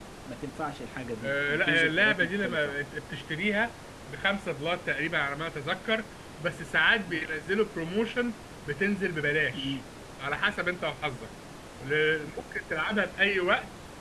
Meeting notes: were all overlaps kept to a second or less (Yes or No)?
No